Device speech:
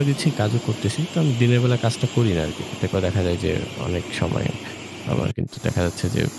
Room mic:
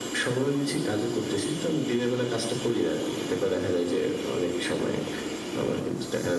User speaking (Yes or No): No